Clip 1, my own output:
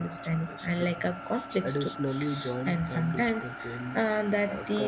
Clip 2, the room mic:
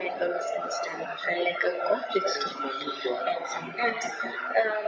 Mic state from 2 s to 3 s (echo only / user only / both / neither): echo only